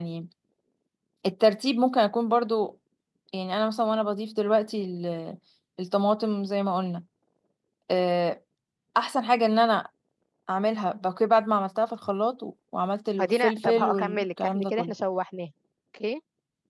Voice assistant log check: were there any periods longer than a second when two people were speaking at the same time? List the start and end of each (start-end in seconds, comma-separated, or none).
13.2-14.9